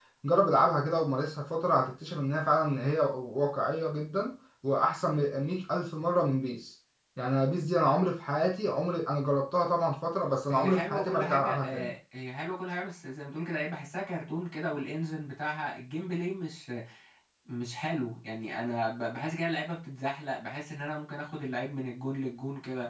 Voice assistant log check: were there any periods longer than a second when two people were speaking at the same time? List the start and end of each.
10.5-11.9

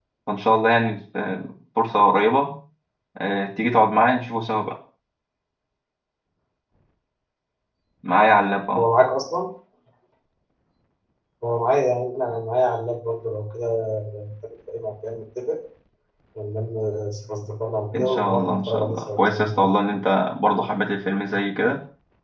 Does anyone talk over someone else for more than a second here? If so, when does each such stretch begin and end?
17.9-19.7

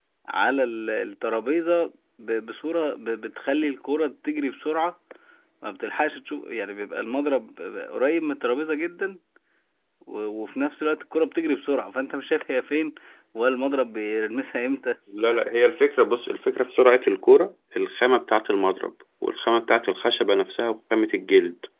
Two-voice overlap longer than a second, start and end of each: none

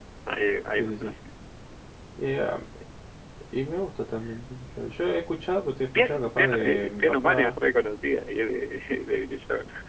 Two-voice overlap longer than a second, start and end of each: 5.9-7.6

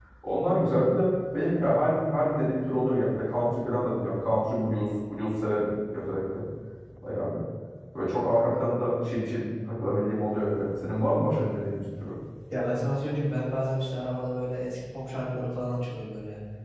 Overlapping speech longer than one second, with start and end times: none

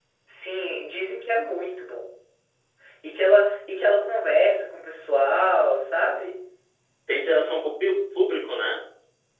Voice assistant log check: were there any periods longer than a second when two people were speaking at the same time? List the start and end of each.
none

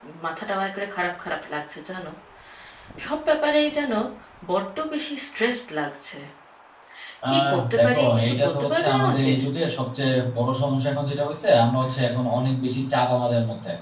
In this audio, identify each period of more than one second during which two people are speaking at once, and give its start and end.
7.3-9.3

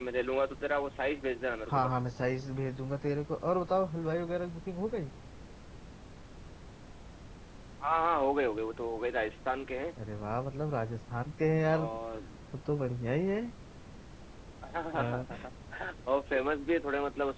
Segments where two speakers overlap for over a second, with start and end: none

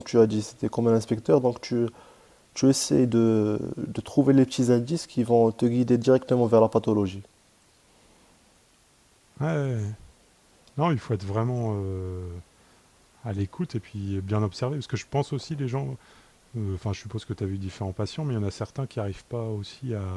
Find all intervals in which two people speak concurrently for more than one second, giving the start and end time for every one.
none

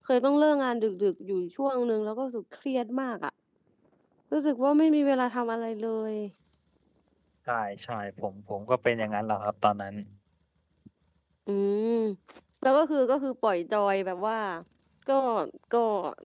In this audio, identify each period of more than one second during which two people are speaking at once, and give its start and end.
none

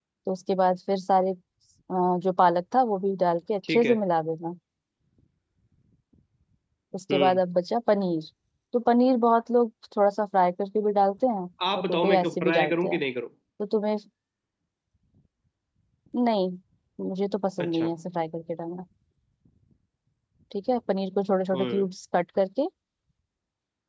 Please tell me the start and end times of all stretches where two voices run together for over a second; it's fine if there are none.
11.8-13.0

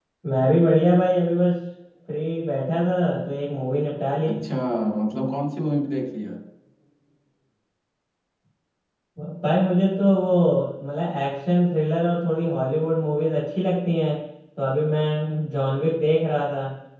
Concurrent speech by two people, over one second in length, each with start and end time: none

